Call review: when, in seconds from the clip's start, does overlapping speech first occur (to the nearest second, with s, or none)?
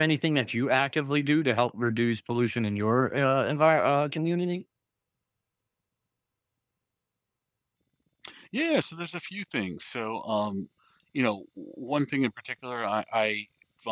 none